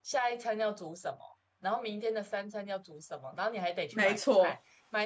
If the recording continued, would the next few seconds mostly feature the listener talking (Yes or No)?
No